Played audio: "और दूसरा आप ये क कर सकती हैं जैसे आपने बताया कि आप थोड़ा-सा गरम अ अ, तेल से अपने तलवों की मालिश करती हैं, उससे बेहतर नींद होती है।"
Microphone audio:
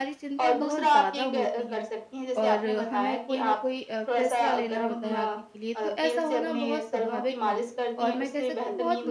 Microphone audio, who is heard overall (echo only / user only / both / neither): both